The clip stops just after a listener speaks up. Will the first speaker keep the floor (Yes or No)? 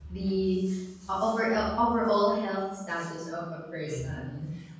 No